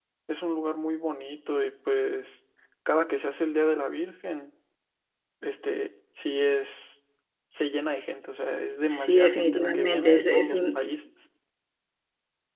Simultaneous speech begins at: 8.9 s

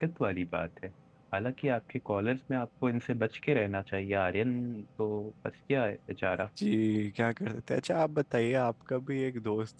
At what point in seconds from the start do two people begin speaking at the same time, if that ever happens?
none

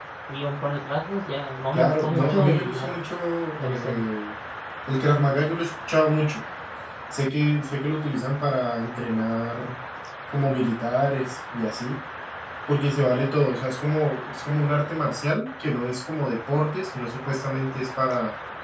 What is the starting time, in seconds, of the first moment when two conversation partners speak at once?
1.7 s

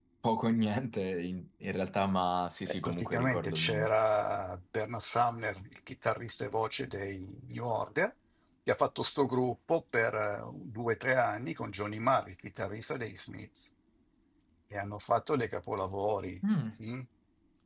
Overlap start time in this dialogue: 2.7 s

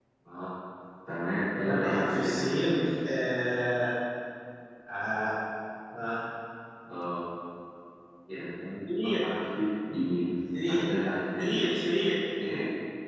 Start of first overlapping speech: 1.6 s

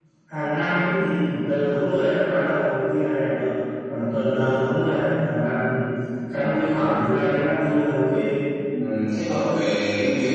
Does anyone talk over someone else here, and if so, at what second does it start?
none

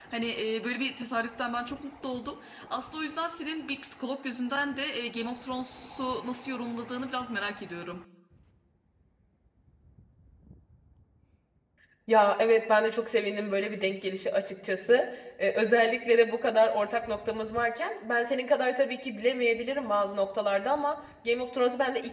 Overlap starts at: none

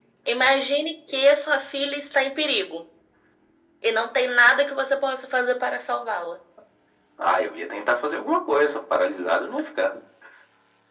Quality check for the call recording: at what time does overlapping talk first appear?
none

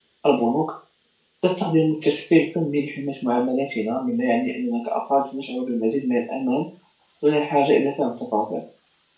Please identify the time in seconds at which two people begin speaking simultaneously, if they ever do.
none

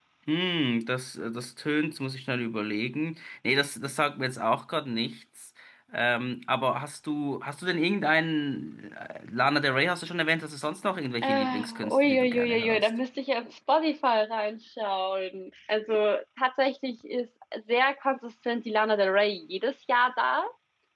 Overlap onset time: 11.2 s

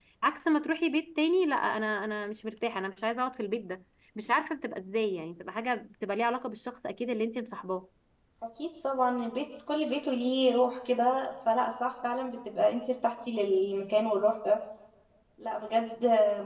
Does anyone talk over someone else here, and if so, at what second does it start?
none

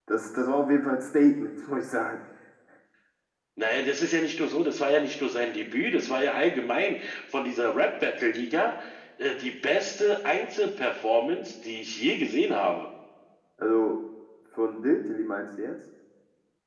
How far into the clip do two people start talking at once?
none

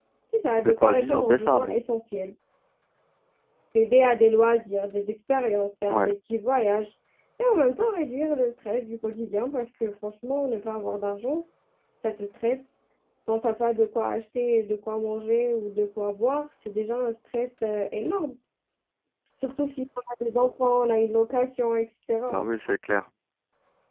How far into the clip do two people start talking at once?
0.6 s

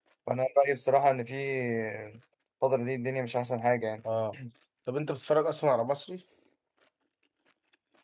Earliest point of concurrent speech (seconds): none

